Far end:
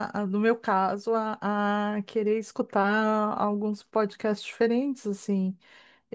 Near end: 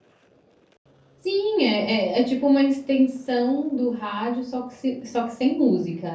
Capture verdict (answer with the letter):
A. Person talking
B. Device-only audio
A